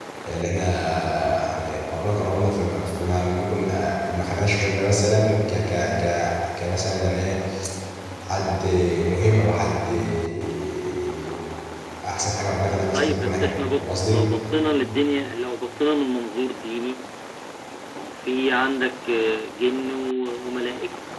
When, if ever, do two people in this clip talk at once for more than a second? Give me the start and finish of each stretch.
12.9-14.3

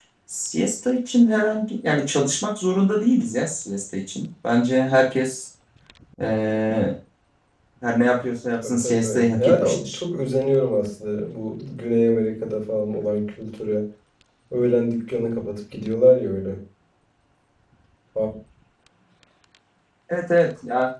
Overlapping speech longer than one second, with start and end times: 8.6-10.0

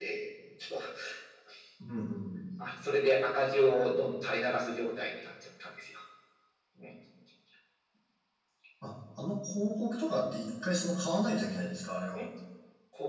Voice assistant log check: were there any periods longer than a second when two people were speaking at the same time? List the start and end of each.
none

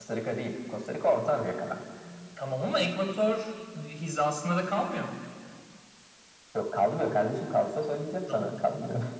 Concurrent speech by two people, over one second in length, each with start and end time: none

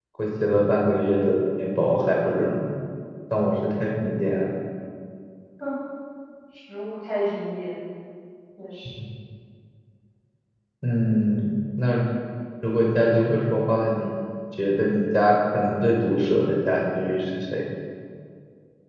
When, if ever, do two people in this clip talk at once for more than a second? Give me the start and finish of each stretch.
none

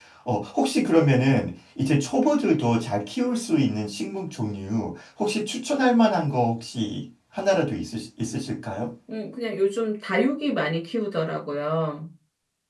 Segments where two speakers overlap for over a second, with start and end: none

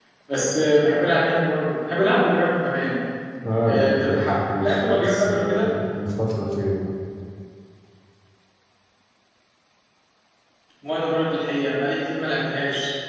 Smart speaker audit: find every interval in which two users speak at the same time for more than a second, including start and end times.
3.7-5.7

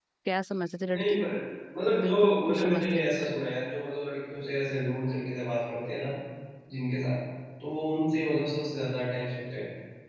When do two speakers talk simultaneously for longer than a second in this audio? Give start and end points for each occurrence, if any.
2.0-3.3

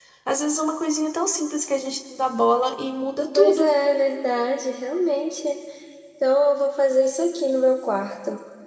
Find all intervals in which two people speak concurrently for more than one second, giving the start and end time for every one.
none

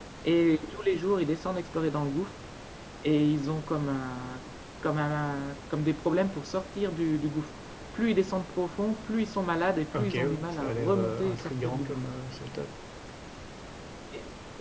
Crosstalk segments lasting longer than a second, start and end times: 9.9-12.0

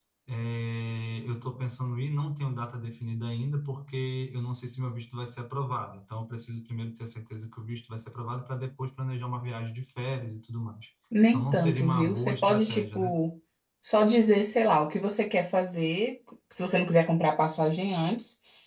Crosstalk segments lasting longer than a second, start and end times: 11.3-13.1

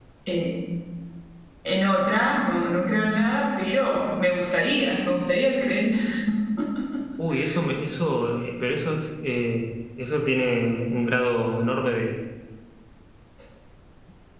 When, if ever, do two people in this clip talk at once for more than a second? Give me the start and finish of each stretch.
none

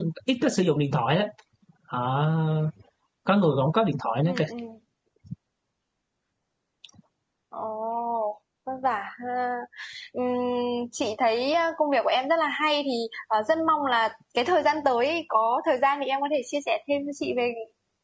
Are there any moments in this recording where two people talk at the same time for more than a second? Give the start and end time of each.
none

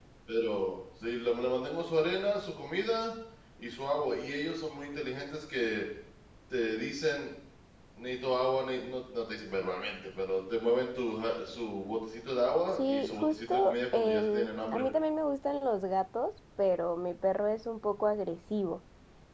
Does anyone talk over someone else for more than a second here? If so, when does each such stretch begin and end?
12.8-14.8

